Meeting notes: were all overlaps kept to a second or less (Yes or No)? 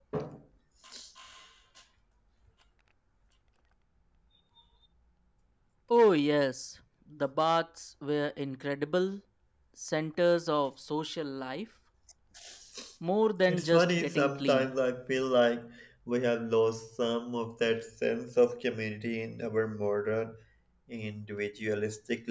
No